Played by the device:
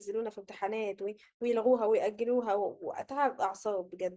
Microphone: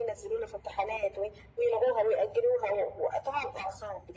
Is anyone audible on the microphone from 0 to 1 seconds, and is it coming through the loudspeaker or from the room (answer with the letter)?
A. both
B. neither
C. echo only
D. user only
C